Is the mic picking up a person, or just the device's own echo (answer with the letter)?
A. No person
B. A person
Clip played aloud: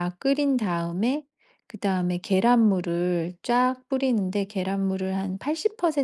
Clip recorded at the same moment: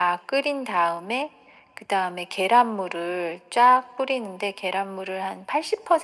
A